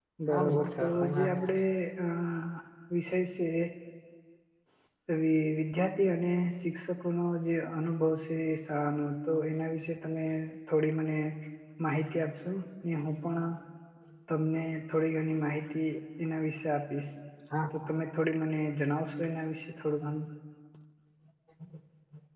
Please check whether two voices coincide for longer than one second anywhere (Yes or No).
Yes